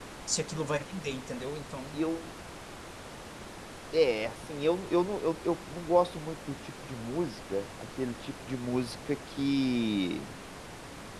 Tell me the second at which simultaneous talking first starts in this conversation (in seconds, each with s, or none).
none